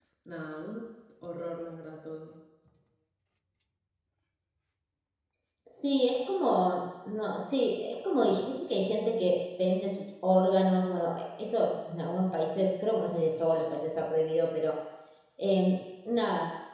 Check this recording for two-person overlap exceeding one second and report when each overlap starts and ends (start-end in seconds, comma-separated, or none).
none